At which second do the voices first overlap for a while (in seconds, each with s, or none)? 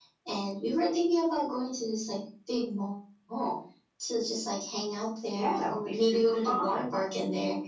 5.3 s